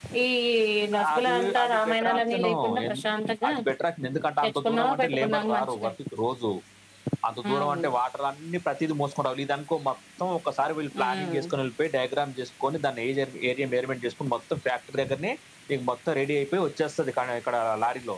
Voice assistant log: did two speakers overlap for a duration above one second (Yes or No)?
Yes